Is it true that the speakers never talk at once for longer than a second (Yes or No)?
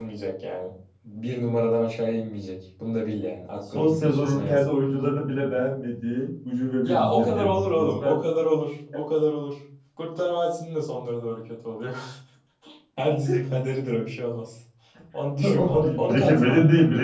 No